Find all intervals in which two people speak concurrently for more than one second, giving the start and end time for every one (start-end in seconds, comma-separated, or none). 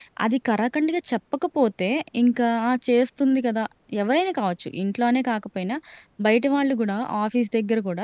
none